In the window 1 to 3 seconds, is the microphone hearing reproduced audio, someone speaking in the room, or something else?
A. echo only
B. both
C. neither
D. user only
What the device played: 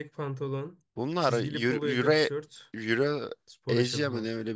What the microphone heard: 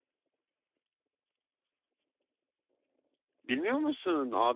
C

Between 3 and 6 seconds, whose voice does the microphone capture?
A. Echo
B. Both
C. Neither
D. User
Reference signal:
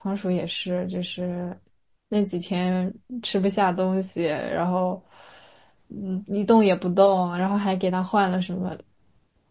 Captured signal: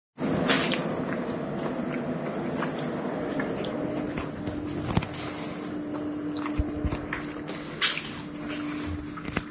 C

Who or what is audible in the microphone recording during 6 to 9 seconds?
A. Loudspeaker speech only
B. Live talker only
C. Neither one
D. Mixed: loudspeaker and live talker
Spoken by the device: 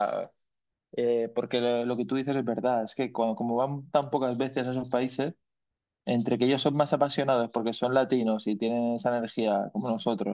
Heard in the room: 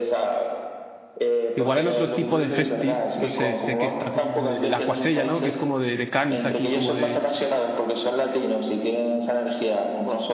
D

